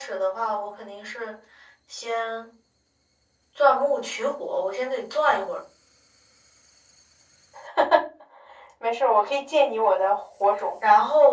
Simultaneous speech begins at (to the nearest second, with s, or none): none